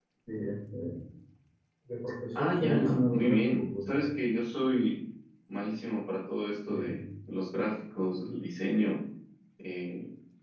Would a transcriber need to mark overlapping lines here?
Yes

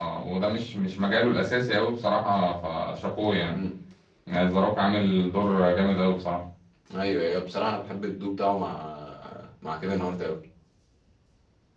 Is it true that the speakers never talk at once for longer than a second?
Yes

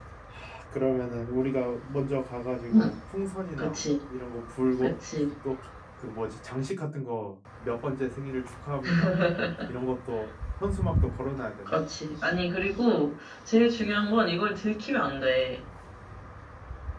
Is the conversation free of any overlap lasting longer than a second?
Yes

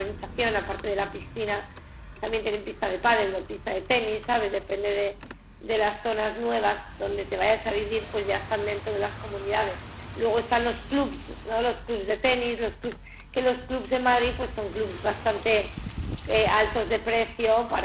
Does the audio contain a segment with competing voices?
No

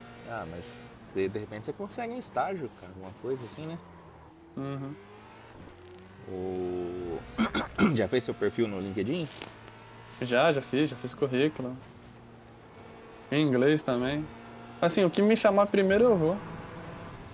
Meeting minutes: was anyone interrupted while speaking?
No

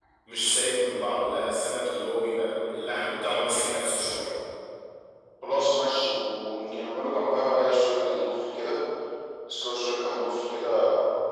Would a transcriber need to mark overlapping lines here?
No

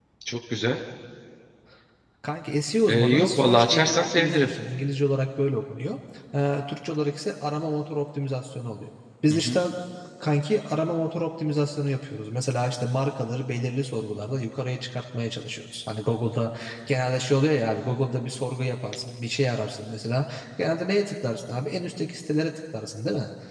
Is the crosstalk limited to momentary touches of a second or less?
No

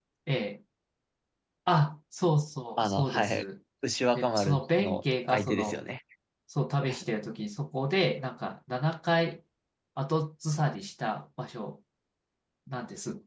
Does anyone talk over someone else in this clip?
Yes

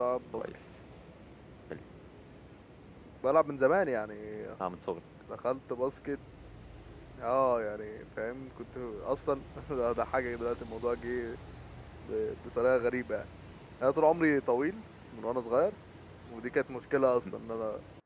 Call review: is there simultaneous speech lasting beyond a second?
No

